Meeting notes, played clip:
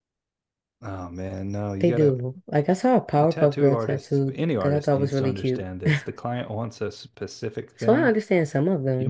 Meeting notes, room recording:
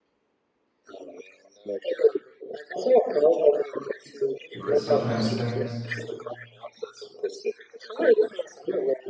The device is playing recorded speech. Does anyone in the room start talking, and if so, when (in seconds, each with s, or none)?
4.5 s